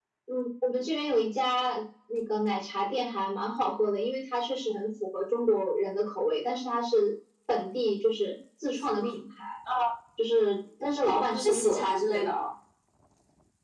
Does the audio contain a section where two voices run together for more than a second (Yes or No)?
Yes